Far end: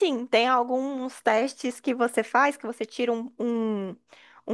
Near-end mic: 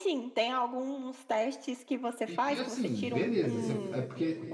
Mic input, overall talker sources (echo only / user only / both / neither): both